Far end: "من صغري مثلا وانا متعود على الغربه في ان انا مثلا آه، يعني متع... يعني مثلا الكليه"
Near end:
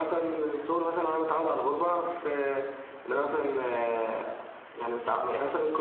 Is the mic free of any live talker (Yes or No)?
Yes